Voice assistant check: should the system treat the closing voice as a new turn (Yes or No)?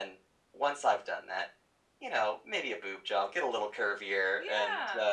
Yes